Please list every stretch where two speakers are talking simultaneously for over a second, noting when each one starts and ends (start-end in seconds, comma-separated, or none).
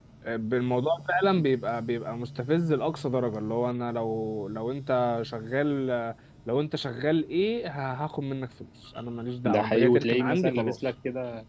9.4-10.8